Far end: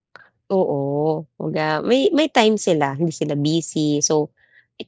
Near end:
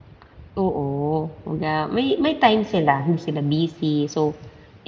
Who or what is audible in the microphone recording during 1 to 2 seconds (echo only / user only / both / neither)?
echo only